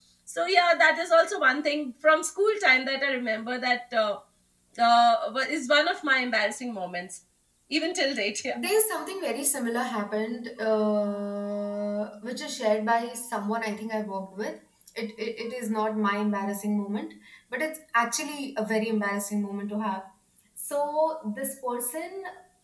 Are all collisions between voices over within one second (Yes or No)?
Yes